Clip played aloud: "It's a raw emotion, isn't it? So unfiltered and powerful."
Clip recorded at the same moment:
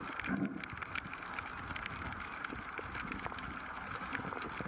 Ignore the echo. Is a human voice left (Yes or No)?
No